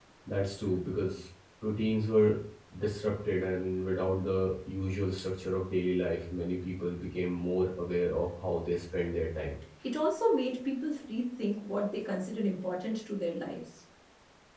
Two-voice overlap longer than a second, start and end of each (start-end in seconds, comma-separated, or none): none